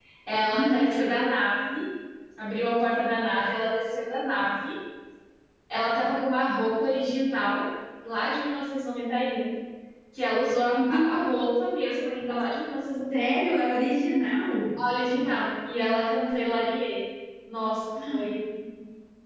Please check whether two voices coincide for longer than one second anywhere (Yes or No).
No